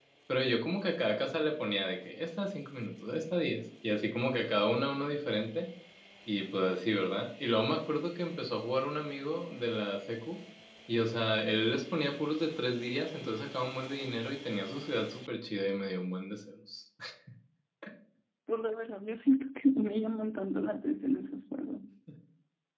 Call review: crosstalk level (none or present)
none